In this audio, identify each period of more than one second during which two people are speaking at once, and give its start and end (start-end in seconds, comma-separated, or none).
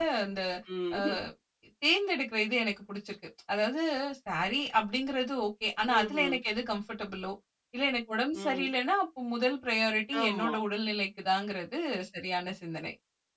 none